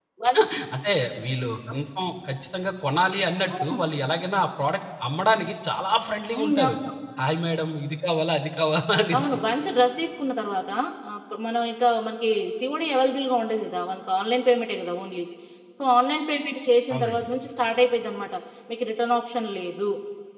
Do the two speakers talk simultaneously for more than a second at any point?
No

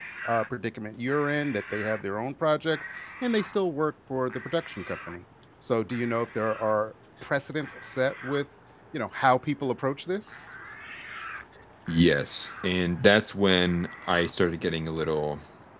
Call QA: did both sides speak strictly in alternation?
Yes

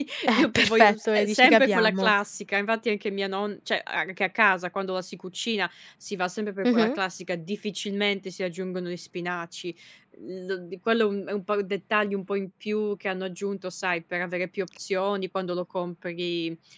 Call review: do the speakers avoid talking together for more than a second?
No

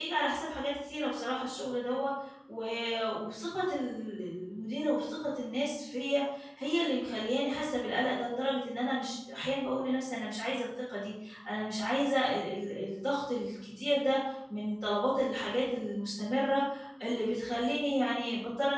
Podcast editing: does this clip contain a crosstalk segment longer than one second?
No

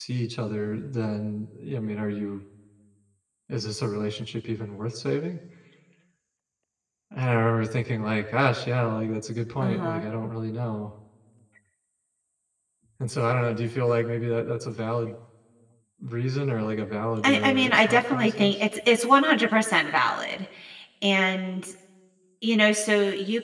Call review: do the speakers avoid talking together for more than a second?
No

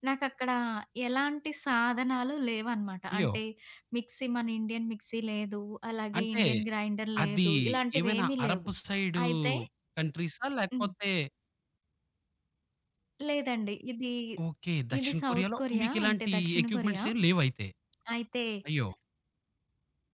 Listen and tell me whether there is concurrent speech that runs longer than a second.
Yes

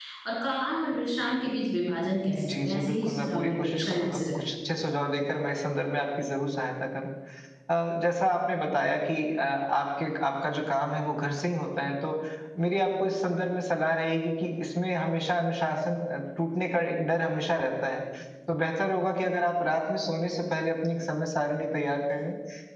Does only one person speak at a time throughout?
No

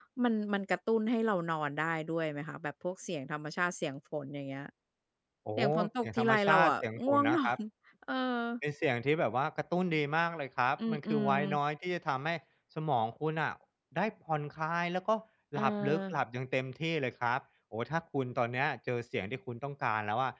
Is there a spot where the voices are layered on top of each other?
Yes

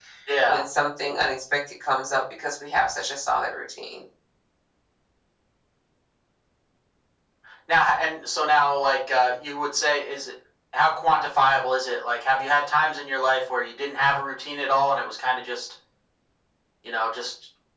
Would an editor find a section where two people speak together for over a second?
No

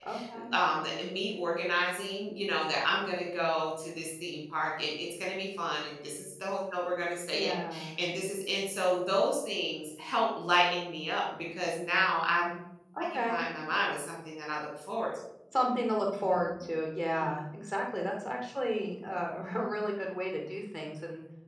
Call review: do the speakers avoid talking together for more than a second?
Yes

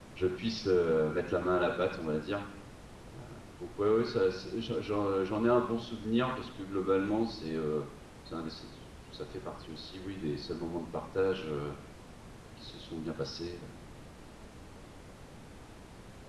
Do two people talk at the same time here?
No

